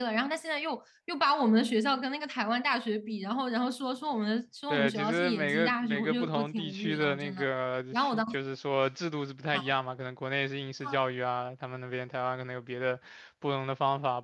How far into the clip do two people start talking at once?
5 s

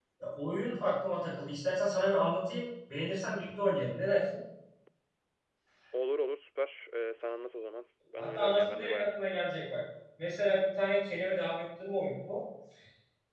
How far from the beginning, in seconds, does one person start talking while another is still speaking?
8 s

